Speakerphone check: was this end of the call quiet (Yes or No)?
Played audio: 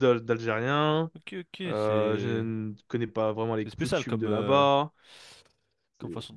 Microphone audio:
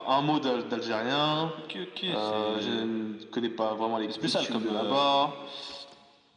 Yes